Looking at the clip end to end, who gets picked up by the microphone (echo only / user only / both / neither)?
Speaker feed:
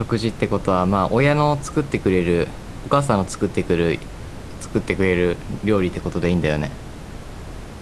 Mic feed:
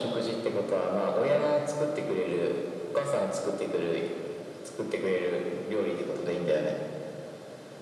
echo only